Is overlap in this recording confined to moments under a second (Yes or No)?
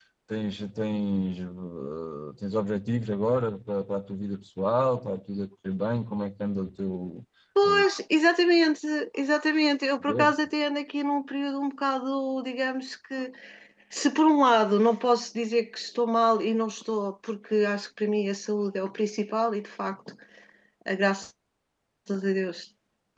Yes